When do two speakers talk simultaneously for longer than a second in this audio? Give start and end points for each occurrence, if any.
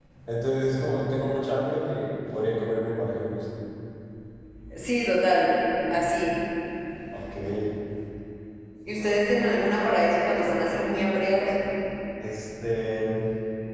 none

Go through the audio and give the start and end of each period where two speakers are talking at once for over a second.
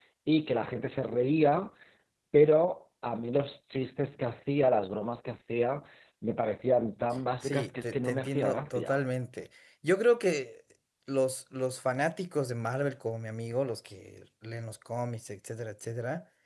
7.4-9.0

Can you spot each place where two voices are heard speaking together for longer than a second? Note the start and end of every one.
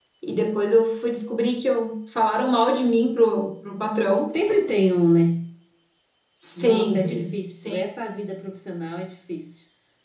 6.6-7.8

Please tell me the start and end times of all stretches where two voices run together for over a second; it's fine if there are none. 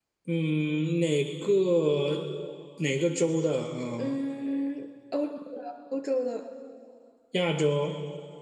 none

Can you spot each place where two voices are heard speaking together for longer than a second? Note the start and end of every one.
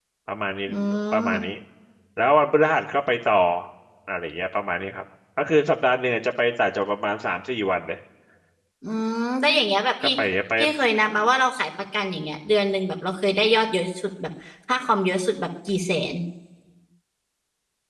none

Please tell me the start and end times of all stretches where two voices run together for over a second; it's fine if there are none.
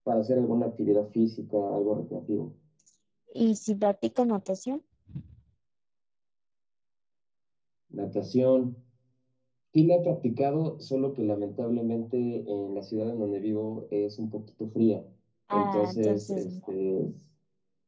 15.5-16.7

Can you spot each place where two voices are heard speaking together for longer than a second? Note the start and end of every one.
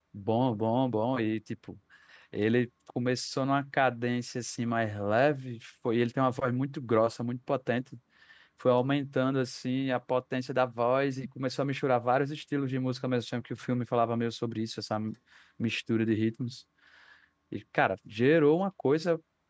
none

